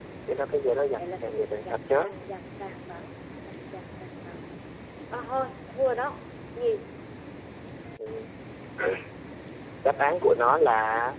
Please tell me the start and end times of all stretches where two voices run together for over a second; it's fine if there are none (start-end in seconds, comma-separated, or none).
0.5-1.9